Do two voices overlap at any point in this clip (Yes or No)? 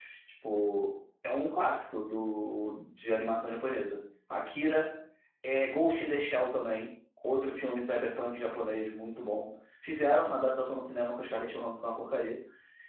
No